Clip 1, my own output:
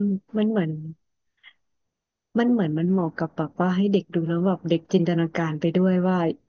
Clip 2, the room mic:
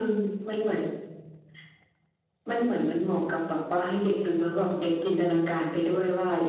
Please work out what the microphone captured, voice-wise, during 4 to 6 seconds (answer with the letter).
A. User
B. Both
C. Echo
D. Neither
C